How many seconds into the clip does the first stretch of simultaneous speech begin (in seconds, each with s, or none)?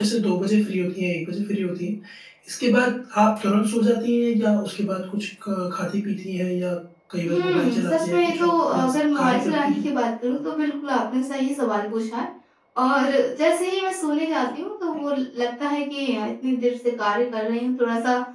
7.2 s